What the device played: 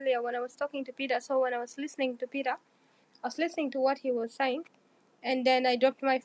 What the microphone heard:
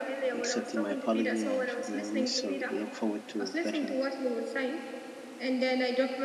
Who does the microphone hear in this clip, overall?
both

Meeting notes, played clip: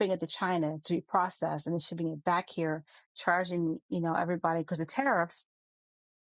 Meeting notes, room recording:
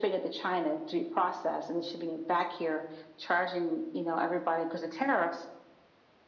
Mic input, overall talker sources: echo only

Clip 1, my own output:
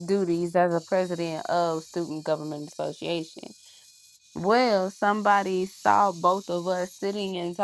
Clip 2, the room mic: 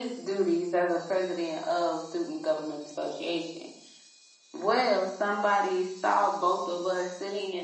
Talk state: echo only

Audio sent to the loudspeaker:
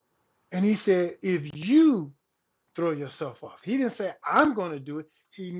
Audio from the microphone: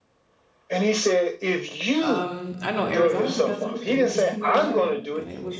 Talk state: both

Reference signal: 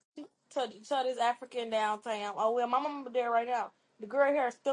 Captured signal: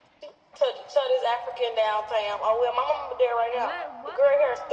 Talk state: both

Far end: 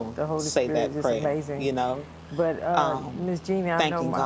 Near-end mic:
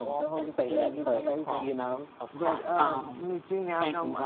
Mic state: both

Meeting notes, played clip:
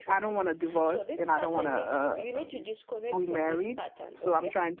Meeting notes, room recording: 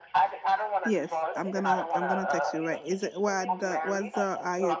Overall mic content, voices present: both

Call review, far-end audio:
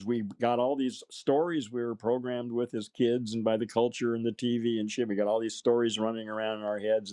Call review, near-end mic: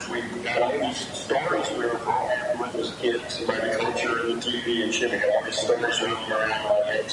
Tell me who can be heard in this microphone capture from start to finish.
echo only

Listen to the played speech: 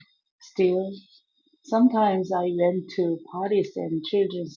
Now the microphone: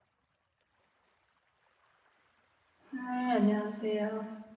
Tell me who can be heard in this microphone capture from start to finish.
user only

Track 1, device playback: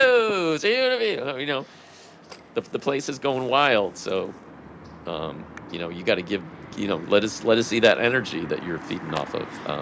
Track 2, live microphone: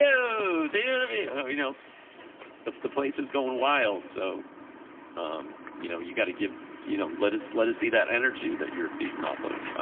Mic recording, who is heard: echo only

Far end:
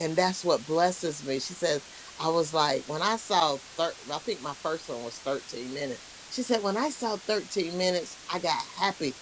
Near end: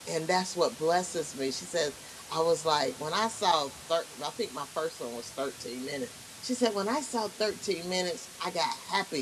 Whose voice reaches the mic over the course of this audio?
echo only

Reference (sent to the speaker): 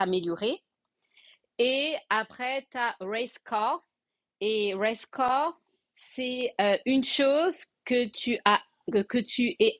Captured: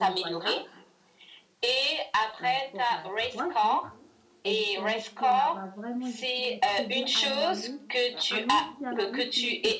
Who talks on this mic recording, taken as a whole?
both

